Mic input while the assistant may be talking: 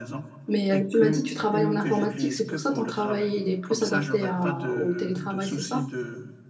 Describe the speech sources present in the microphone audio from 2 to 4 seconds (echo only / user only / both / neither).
both